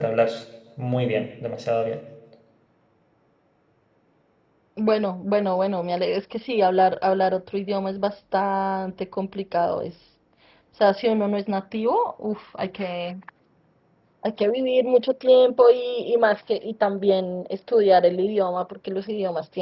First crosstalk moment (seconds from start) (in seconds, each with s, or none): none